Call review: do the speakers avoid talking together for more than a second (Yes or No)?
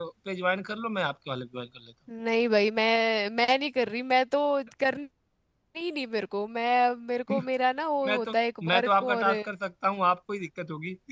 No